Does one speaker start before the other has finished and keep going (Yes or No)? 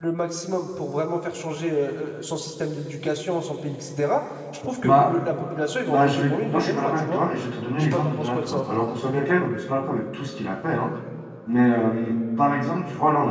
Yes